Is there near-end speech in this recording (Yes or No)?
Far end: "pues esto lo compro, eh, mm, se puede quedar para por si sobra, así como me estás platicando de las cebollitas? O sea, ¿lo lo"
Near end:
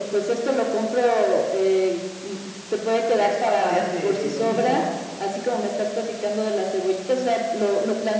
Yes